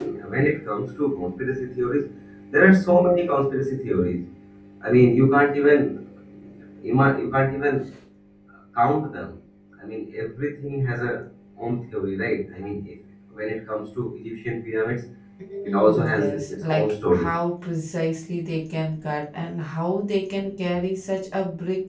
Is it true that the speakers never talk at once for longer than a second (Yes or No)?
No